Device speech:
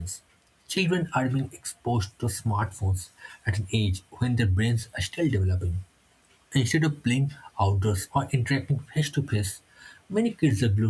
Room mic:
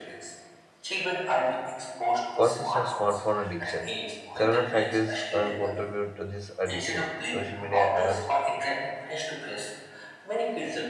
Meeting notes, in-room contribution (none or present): present